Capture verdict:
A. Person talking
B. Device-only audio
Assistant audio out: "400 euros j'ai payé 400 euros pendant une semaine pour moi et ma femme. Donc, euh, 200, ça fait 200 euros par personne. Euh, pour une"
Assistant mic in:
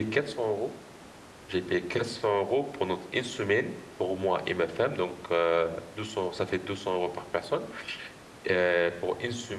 B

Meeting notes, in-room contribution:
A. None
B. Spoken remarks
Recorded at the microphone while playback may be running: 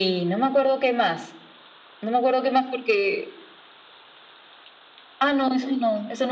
A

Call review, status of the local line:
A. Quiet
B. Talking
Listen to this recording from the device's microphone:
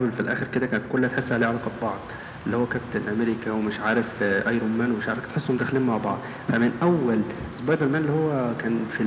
A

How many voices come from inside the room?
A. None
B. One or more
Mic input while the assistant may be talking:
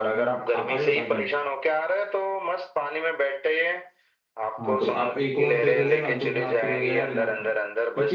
B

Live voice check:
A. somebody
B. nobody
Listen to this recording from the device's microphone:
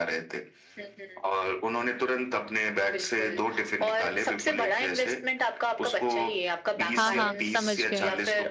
A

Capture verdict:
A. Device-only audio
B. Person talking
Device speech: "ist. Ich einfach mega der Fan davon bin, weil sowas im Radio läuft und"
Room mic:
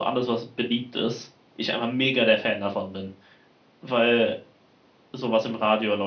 A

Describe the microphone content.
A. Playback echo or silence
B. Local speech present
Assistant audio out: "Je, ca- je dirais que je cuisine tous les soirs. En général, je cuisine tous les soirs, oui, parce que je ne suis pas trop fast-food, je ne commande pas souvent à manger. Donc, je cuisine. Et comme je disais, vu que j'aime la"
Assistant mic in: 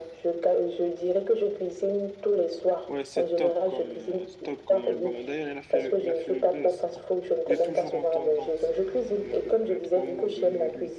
B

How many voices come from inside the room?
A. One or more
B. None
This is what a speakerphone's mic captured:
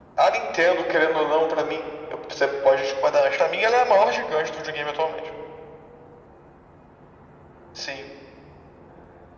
B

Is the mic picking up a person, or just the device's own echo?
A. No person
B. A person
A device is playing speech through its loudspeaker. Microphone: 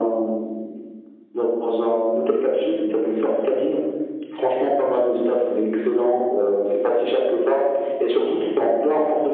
A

